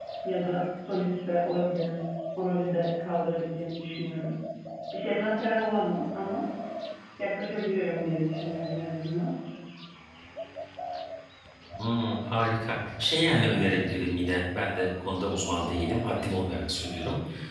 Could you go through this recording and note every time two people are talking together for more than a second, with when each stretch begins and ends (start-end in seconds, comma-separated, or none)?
none